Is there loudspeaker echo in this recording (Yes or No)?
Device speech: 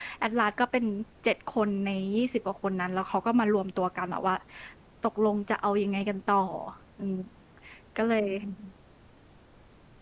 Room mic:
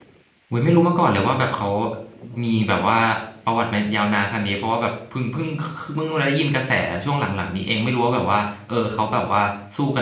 No